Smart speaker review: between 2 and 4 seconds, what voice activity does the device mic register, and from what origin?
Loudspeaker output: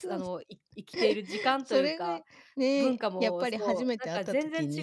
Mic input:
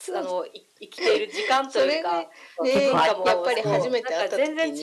both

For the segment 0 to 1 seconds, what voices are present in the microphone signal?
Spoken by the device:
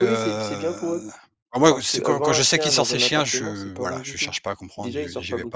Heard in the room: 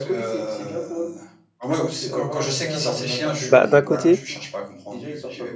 echo only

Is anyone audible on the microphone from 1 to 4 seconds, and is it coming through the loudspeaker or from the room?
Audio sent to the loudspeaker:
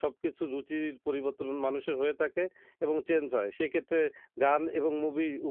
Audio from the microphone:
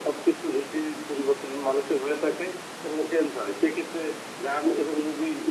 echo only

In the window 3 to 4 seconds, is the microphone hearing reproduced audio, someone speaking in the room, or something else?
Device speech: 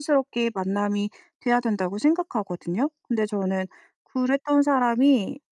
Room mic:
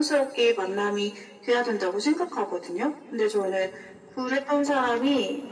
echo only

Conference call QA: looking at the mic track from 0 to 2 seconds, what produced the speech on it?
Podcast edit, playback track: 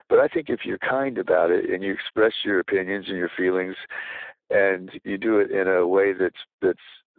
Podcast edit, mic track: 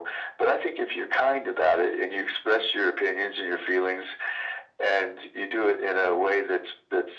echo only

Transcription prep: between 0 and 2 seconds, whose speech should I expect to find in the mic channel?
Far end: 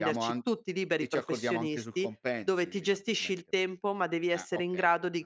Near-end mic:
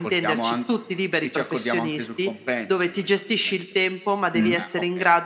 echo only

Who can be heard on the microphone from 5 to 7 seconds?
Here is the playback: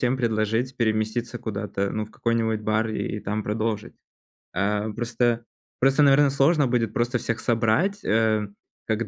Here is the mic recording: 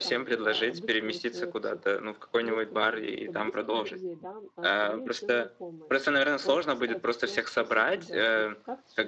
both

